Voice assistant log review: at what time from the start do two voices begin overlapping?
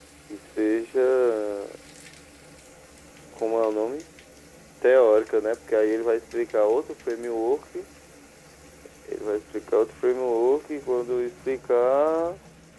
none

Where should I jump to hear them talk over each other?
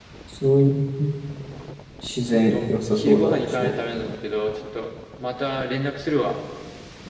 2.2 s

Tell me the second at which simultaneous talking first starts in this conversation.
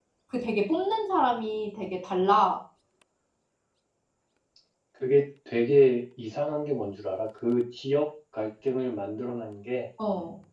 none

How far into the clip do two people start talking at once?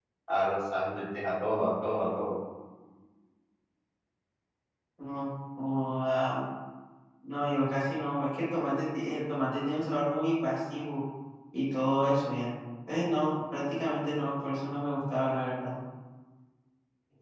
none

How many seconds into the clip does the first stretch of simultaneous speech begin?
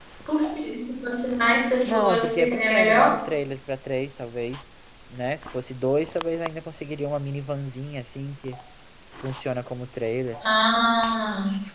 1.9 s

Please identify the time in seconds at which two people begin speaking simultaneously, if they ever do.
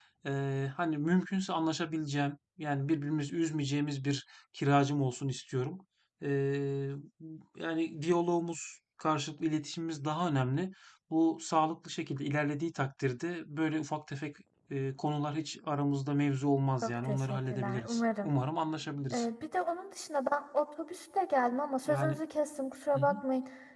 16.8 s

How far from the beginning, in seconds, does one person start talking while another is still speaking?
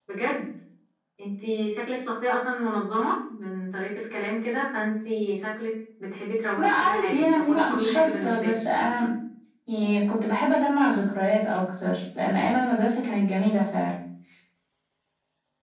6.6 s

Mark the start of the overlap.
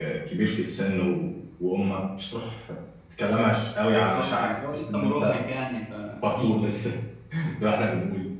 4.1 s

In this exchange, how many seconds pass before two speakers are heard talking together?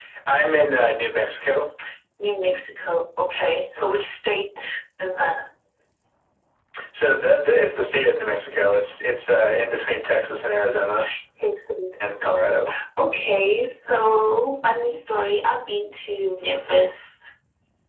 none

